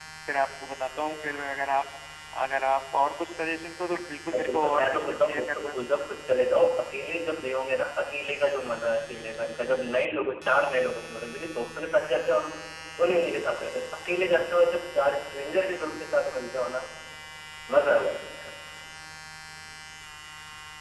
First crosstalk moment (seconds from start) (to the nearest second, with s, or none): 4 s